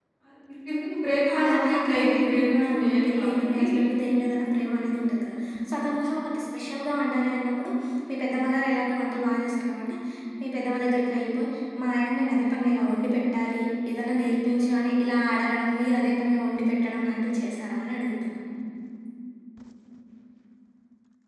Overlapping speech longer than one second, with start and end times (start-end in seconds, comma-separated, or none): 1.3-3.6